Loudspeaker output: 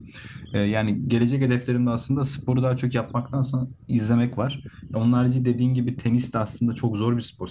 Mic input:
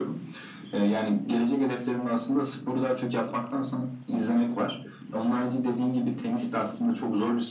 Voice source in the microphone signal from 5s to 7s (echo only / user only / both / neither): echo only